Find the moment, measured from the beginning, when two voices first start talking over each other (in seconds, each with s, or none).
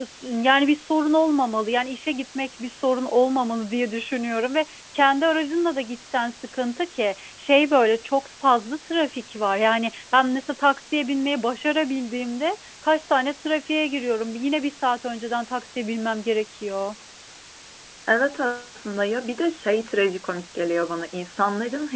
none